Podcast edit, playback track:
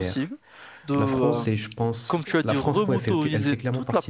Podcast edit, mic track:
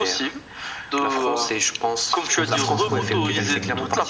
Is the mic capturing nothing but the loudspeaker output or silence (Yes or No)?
No